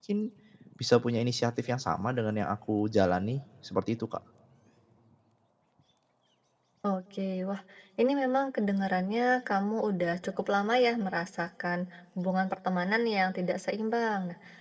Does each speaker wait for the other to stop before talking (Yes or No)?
Yes